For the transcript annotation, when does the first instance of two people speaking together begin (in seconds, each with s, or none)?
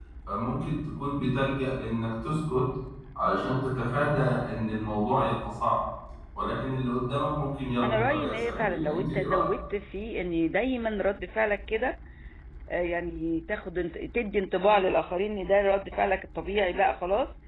7.8 s